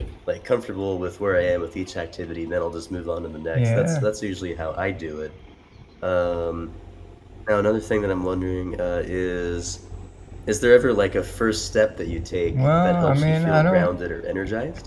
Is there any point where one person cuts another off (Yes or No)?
Yes